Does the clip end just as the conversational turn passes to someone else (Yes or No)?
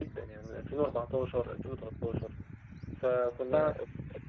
No